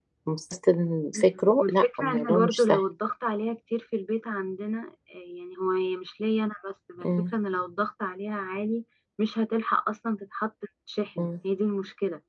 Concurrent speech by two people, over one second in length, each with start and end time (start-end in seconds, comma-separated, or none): 1.1-2.8